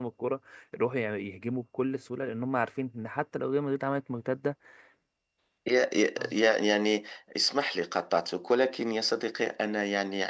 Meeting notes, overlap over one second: none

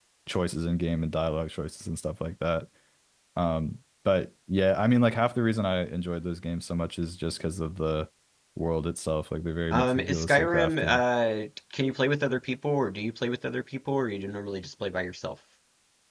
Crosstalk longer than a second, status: present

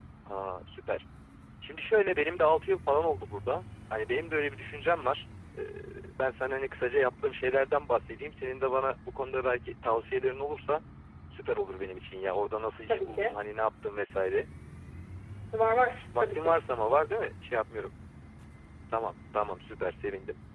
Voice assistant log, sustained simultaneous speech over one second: none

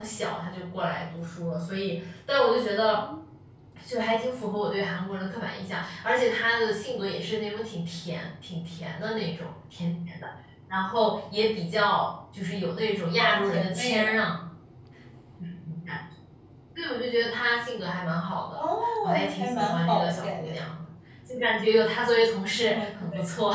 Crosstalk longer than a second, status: present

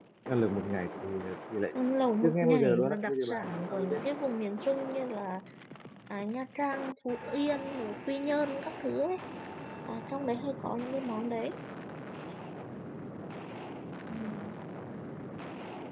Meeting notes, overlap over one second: present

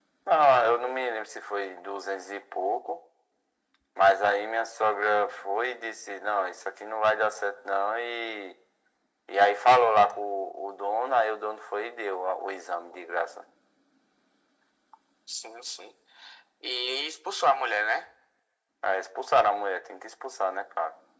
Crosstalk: none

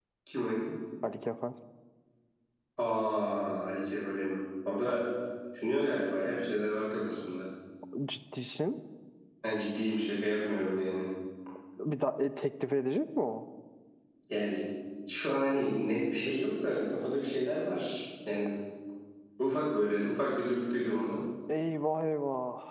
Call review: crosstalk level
none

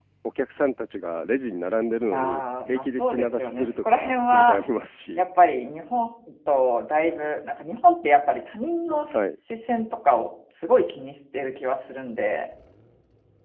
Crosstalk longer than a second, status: present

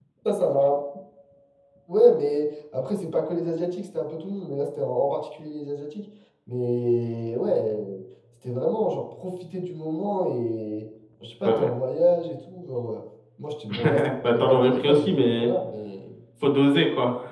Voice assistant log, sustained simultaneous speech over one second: present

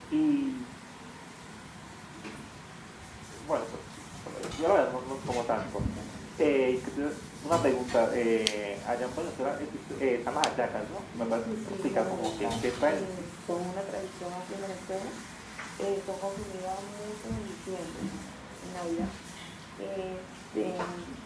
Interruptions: present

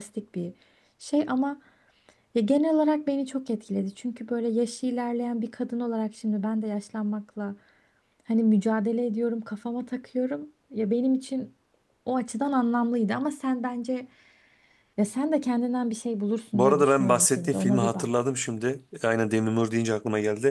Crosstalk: present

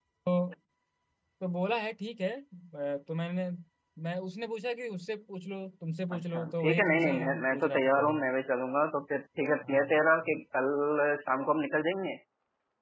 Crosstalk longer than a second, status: present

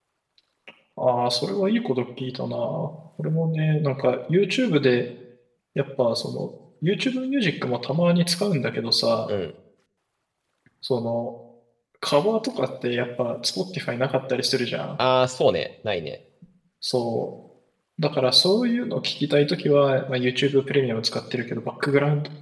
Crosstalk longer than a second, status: none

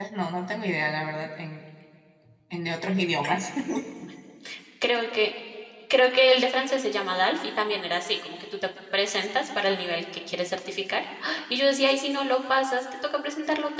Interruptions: none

